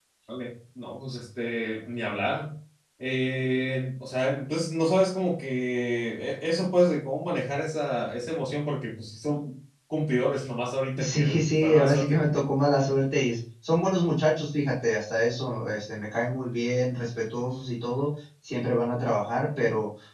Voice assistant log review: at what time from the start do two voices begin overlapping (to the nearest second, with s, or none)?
11 s